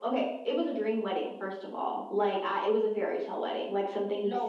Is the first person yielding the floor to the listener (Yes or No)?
No